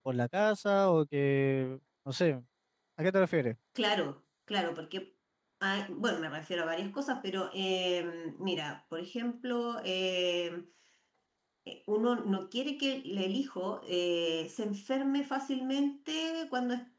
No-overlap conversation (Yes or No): Yes